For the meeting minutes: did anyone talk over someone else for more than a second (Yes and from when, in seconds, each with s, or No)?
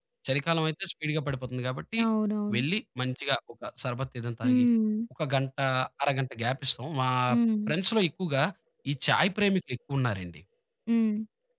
No